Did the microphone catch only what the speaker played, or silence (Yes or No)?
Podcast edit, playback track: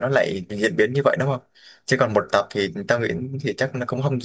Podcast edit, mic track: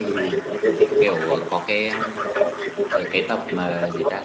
No